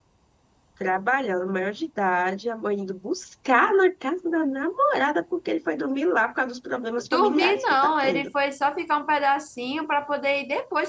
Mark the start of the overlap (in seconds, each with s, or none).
7.0 s